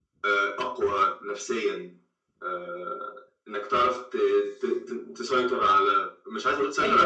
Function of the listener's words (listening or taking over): taking over